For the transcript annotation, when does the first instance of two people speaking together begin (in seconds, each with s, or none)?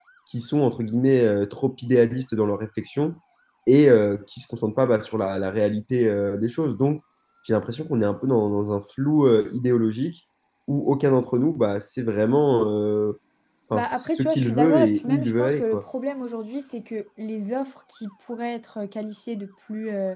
13.7 s